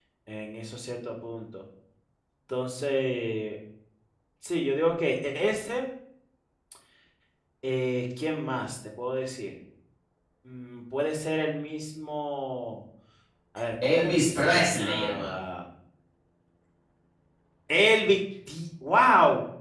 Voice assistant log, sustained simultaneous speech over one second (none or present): present